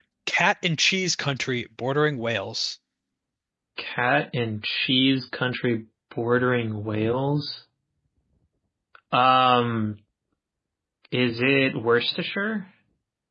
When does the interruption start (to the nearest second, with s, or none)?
none